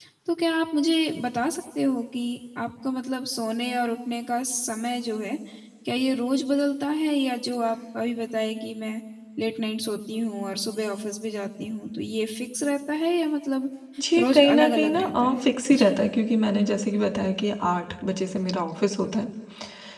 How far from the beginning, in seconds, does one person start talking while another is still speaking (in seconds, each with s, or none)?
14.2 s